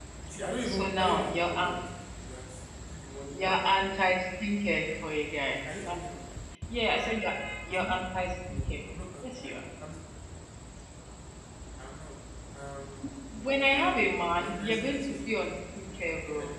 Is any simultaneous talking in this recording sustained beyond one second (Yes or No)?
Yes